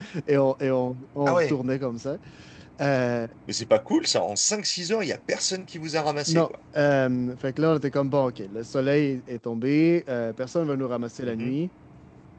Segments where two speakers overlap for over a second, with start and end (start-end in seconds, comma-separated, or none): none